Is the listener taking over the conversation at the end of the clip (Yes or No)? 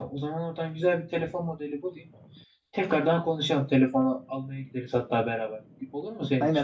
Yes